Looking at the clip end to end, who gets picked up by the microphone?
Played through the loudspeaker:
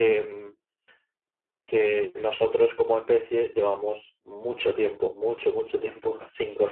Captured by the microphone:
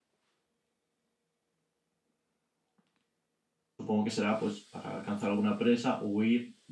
user only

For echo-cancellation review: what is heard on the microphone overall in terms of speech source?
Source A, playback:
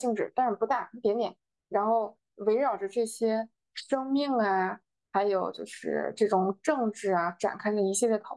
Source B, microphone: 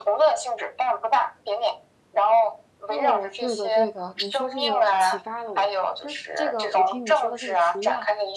both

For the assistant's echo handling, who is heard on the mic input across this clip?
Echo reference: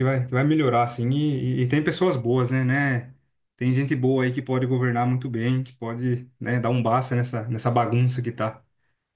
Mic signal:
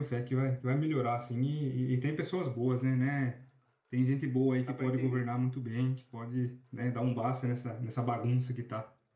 both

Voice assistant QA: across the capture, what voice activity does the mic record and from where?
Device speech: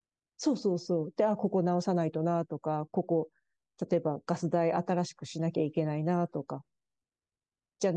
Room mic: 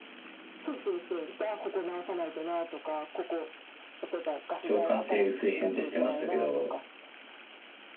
both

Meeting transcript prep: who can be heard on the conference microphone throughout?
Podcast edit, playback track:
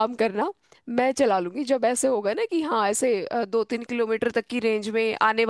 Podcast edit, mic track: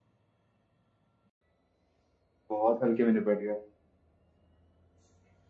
user only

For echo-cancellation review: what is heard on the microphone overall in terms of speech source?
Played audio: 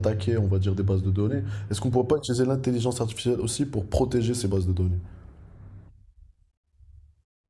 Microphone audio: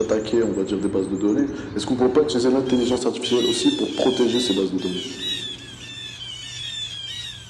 echo only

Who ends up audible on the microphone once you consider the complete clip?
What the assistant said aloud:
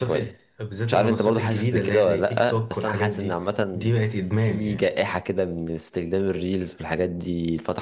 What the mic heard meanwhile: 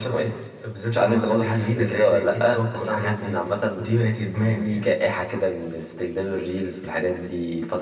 echo only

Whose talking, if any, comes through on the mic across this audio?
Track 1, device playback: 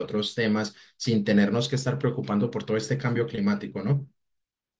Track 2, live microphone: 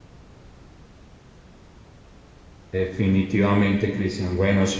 user only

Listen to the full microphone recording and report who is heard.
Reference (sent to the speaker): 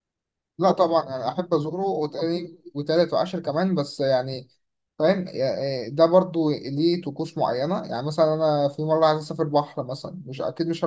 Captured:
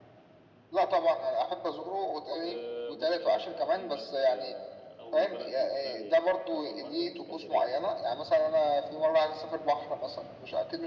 both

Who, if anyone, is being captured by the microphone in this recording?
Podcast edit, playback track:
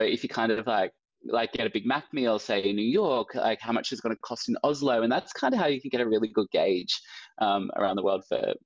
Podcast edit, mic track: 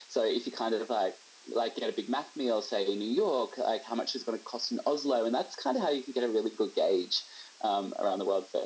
echo only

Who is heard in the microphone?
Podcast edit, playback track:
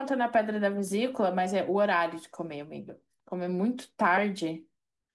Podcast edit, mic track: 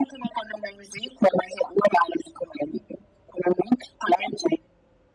echo only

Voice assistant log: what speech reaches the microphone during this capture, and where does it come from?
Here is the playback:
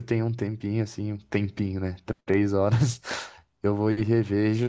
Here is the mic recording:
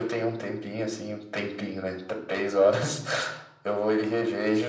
echo only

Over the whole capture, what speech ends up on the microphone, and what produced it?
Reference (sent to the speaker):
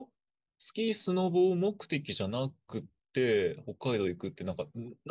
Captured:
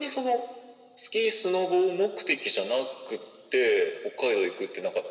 echo only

